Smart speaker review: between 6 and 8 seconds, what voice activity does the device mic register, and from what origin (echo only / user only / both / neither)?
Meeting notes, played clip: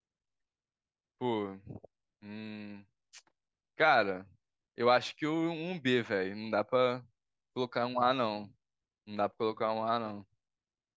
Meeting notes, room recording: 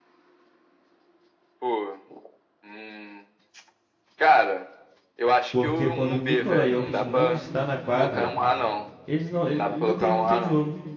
both